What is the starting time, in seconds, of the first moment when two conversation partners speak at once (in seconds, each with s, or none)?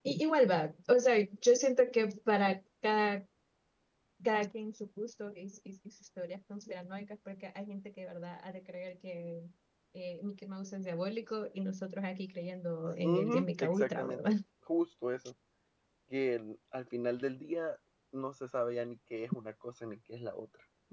13.0 s